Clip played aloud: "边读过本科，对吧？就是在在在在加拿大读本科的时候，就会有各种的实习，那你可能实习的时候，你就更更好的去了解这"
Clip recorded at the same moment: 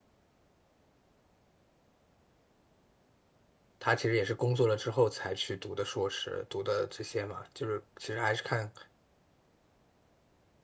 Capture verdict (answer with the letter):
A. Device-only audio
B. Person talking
B